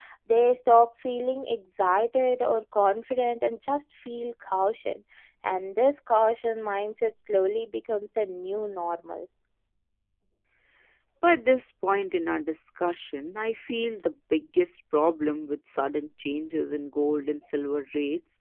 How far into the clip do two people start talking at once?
none

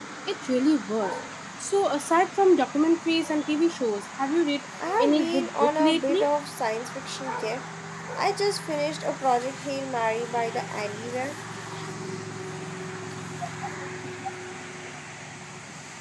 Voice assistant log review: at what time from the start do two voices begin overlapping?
4.8 s

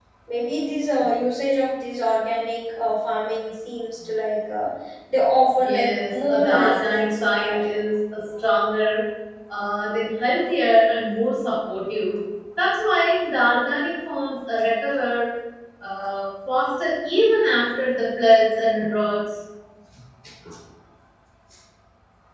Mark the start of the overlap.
5.6 s

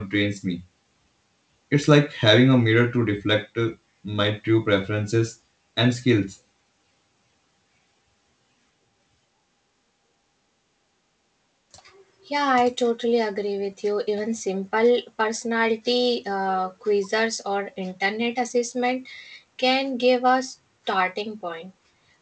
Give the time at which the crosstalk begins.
none

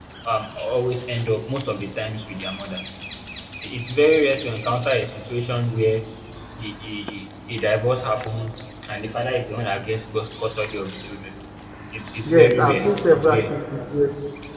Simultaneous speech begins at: 12.2 s

